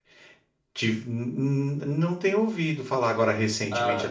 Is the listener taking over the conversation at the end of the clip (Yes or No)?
Yes